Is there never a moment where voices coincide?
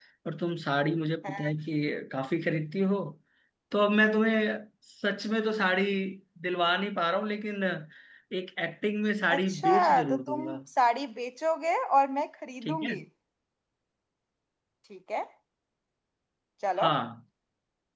No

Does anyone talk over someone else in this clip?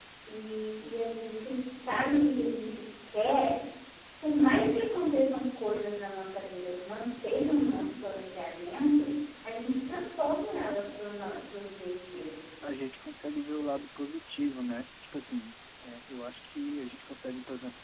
No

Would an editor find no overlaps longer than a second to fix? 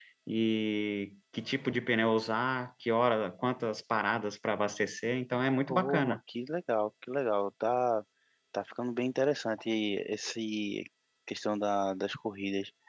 Yes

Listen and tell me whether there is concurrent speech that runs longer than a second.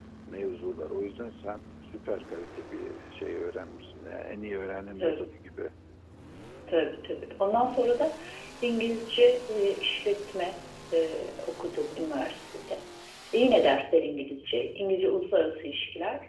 No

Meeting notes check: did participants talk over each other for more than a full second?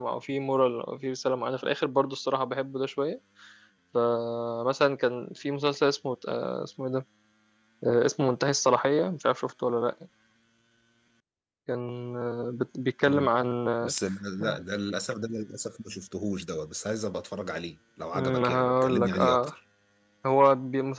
Yes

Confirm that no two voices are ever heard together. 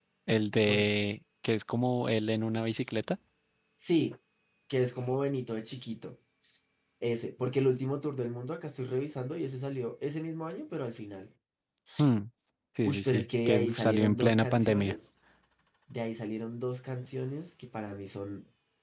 No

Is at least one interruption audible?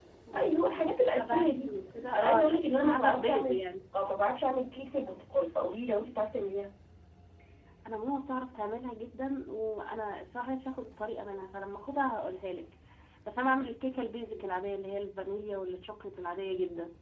Yes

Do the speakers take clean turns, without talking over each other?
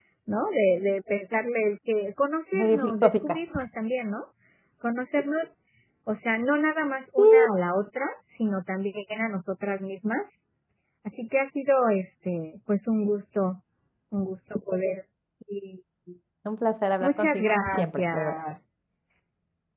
No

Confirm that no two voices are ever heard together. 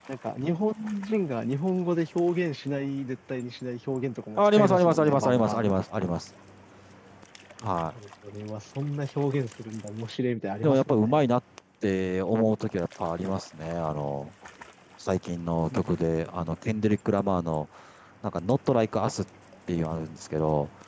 No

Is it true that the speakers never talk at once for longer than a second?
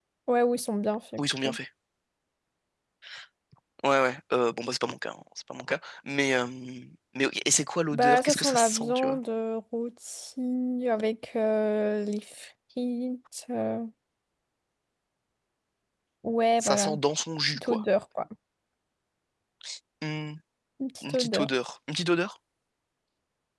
No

